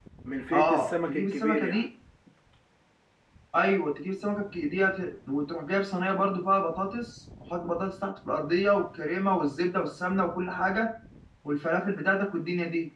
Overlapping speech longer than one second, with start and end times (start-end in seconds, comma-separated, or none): 0.5-1.9